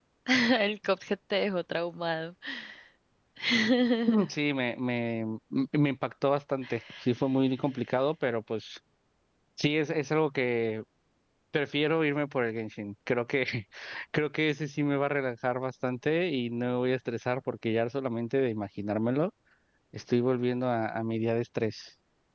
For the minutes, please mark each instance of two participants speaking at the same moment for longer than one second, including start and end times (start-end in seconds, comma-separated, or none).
none